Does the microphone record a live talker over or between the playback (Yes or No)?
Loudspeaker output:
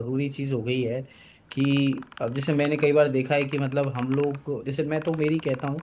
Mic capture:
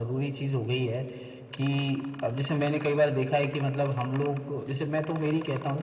No